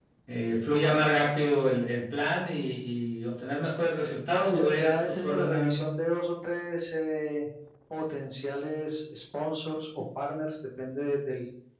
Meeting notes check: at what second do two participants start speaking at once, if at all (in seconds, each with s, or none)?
4.3 s